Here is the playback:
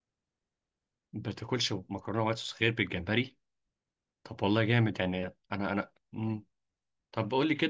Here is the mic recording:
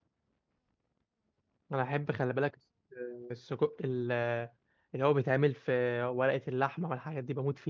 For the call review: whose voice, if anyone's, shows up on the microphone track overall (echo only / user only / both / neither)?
user only